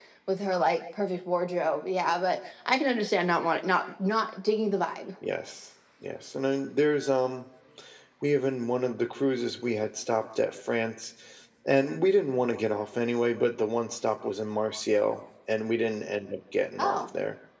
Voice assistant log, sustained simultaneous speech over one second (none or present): none